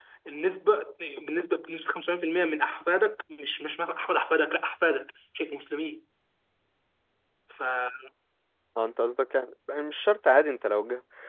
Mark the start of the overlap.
none

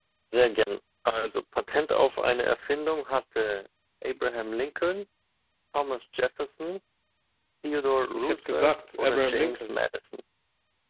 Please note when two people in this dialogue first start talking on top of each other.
8 s

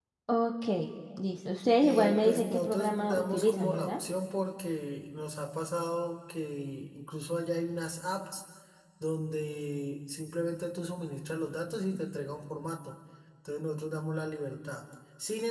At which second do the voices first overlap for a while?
2 s

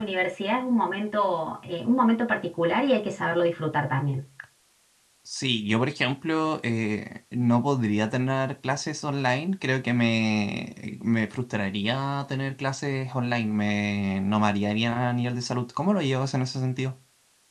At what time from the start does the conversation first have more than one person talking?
none

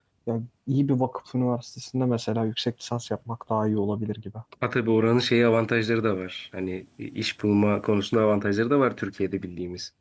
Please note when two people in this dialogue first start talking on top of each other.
none

